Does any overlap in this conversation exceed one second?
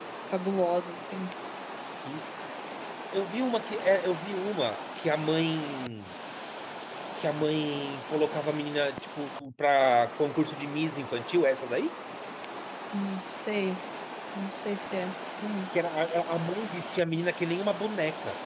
No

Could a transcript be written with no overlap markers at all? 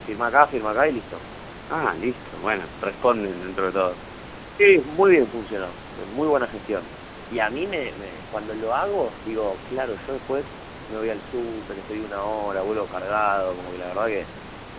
Yes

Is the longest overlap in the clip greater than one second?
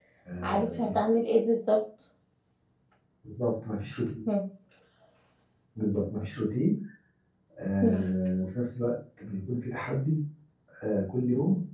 No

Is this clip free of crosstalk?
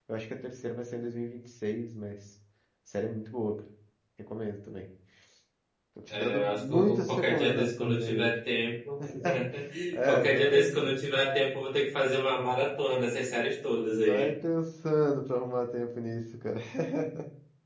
No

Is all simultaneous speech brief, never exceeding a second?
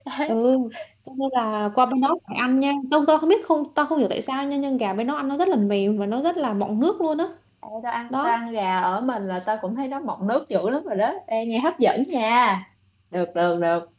Yes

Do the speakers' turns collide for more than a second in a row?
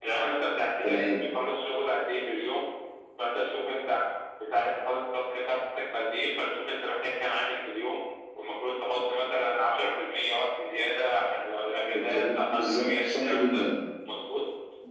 Yes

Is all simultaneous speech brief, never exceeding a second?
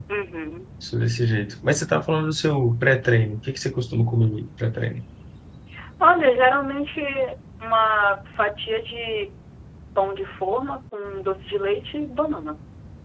Yes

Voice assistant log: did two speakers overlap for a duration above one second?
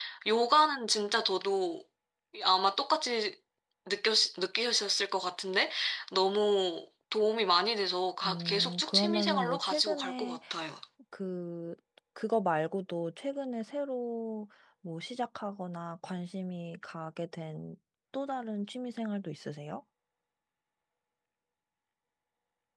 Yes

